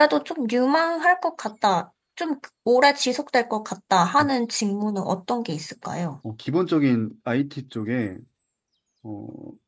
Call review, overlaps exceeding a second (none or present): none